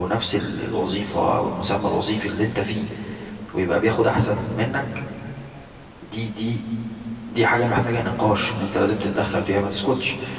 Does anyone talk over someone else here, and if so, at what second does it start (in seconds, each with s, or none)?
none